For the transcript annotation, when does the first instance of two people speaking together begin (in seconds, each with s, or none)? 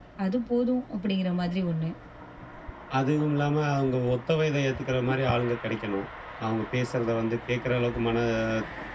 none